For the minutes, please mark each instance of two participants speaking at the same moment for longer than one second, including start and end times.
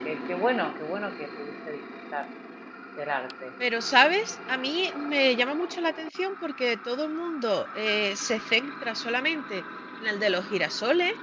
none

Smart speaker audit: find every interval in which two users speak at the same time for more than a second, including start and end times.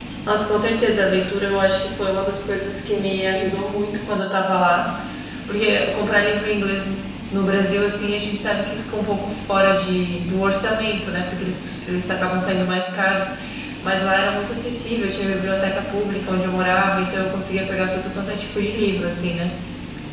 none

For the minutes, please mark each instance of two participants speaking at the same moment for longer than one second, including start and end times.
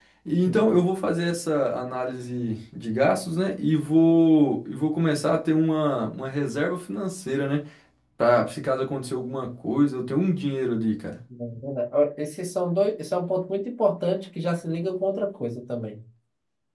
none

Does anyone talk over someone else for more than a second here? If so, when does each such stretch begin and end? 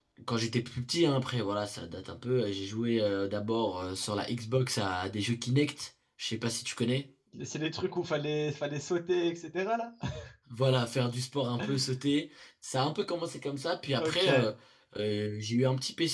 none

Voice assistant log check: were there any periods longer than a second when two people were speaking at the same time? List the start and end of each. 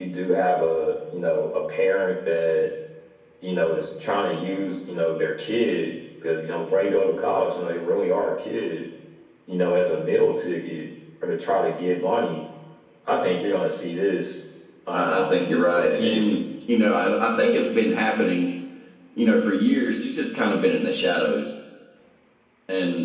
14.9-16.4

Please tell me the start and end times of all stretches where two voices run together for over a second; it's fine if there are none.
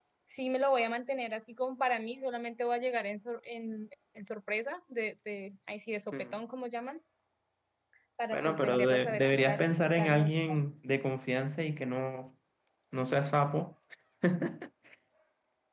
8.3-10.6

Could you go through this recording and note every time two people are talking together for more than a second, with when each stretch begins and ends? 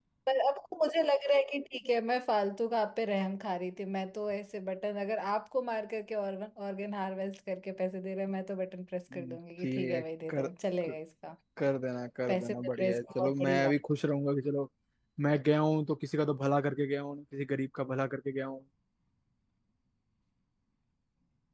9.1-10.5, 12.3-13.7

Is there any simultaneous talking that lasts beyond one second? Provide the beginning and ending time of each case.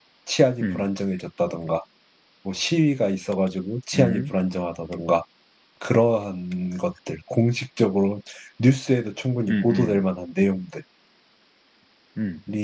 none

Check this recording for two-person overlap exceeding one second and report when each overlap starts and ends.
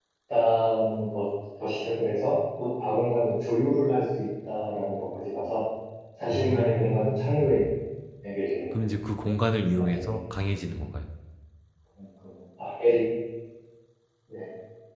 6.3-7.5

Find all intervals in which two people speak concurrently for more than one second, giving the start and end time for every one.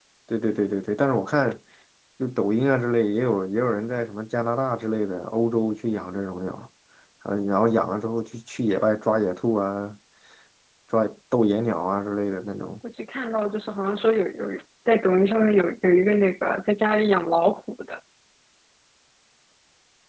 none

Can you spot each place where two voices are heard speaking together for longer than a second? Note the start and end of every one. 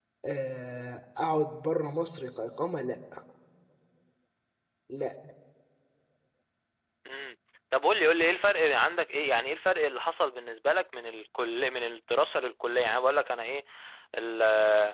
none

